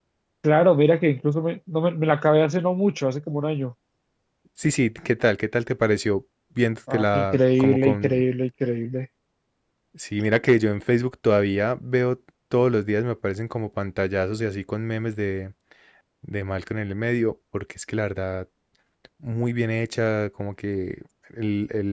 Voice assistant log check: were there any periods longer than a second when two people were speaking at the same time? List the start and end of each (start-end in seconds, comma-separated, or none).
6.9-8.2